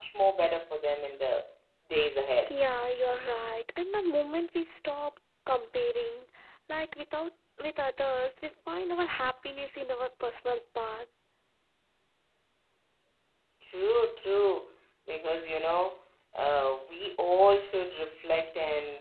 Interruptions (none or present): none